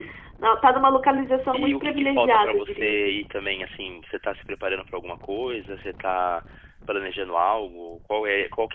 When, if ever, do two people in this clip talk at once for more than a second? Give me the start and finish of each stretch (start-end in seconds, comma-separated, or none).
1.5-3.2